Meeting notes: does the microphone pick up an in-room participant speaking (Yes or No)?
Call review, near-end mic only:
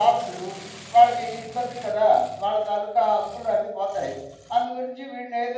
No